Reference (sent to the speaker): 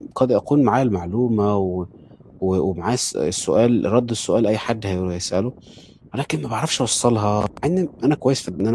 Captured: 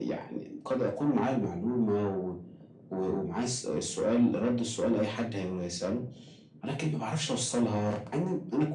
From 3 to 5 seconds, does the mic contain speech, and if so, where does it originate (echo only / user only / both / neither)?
echo only